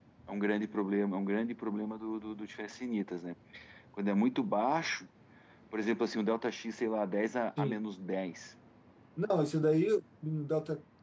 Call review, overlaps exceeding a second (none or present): none